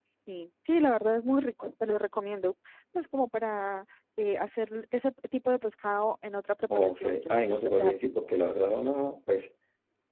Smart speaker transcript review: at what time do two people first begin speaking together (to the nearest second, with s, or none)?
7 s